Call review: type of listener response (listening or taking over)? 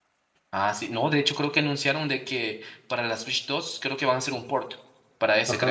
taking over